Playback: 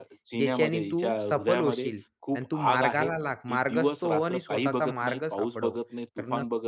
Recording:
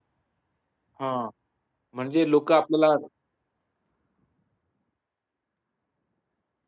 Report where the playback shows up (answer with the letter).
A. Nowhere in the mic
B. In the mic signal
A